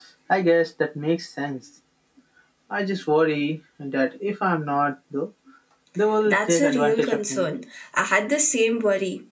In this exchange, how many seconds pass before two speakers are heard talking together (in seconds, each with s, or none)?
6.2 s